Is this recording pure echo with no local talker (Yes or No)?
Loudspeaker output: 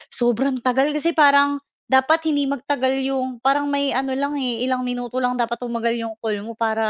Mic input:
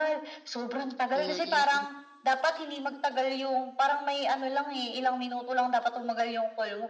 No